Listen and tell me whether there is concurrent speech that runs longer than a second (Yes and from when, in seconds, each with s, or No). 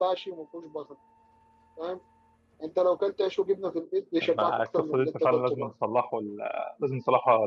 Yes, from 4.2 s